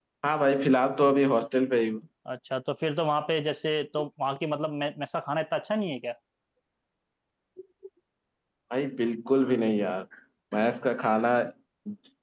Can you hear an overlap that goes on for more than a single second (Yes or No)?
No